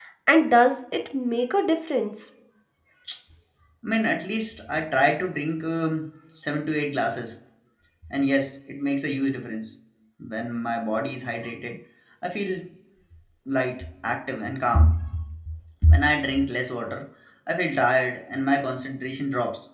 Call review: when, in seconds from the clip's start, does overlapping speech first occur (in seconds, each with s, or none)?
none